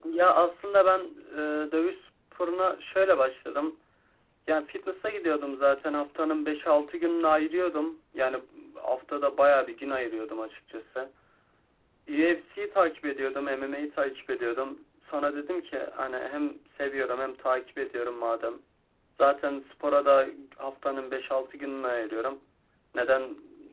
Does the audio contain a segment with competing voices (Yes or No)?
No